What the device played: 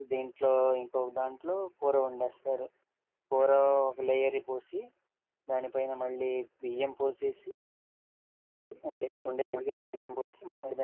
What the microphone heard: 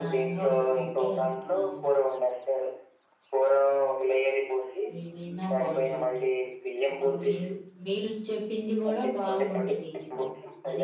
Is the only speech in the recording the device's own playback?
No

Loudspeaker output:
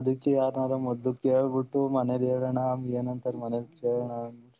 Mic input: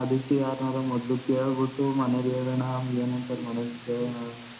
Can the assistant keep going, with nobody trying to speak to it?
Yes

